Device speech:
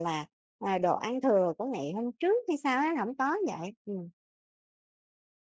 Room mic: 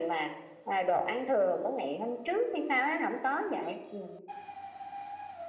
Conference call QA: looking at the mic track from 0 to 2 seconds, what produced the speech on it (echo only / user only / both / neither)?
echo only